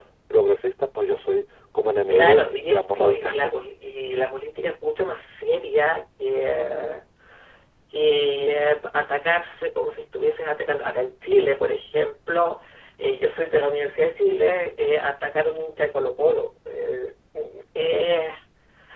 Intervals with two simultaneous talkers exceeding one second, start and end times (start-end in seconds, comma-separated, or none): 2.1-3.6